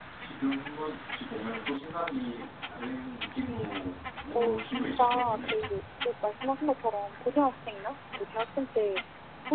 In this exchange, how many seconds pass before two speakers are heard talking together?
4.3 s

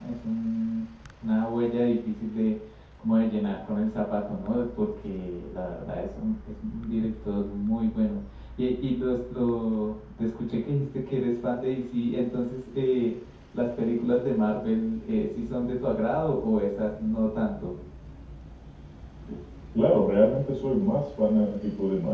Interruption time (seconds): none

